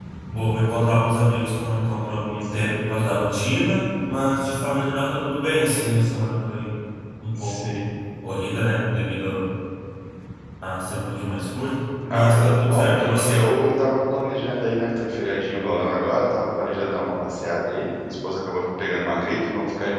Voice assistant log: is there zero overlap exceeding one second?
No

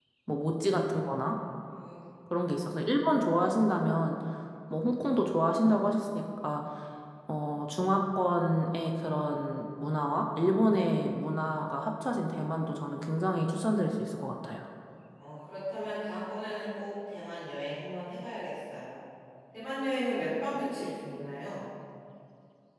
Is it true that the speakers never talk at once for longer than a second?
Yes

